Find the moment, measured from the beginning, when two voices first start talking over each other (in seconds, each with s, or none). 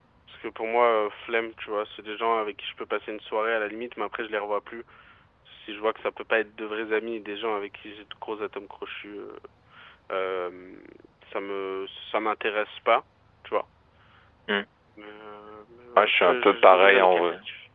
16.0 s